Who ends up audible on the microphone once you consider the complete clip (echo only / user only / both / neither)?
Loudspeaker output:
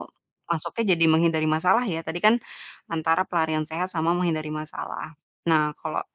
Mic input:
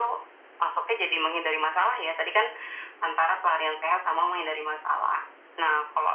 echo only